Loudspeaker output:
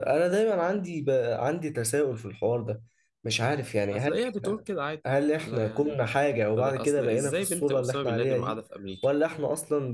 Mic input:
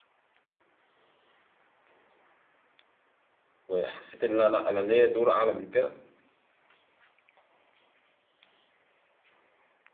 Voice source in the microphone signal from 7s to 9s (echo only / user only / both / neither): neither